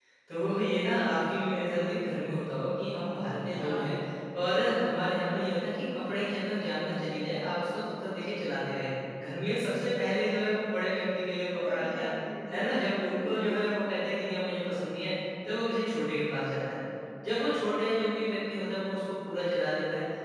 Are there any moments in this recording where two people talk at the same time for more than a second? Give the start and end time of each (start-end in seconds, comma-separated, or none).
none